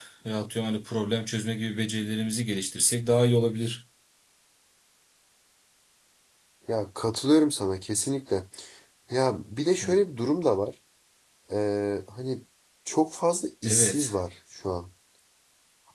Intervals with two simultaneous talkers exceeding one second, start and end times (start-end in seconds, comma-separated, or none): none